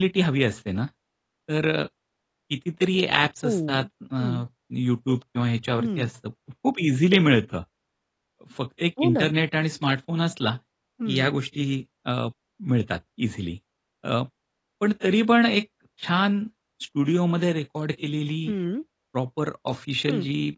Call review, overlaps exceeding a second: none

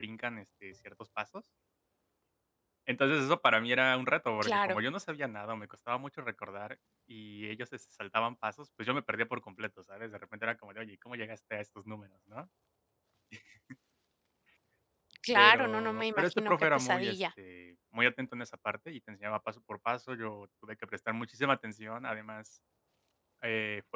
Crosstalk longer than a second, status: present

